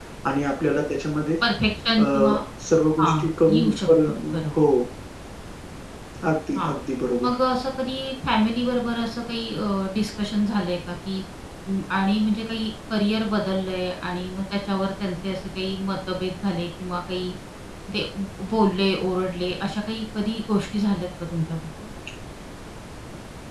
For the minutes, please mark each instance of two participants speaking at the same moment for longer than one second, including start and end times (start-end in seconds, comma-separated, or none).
3.0-4.5